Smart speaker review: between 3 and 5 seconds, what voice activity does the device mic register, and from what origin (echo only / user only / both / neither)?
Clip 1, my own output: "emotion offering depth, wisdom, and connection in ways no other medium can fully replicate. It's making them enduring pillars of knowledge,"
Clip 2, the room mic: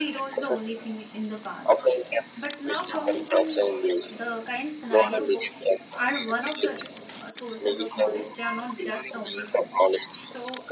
both